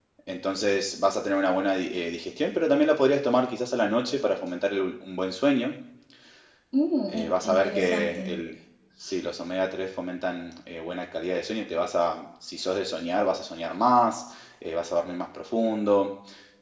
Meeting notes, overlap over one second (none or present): present